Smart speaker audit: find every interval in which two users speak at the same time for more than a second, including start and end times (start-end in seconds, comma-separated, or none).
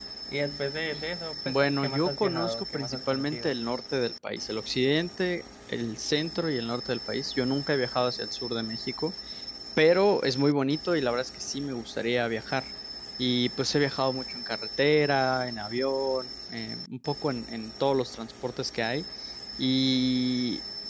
1.4-3.6